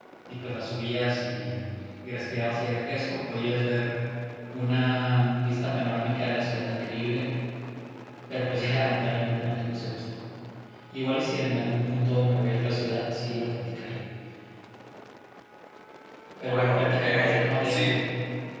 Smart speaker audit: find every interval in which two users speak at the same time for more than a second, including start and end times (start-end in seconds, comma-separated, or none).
16.5-17.9